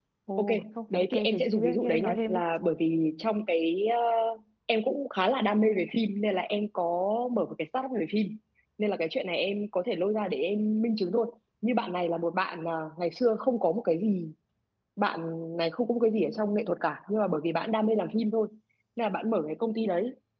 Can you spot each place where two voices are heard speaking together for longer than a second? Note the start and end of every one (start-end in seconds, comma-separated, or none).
0.9-2.4